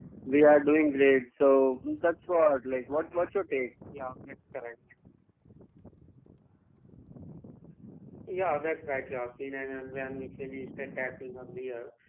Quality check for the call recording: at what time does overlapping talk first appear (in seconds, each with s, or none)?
none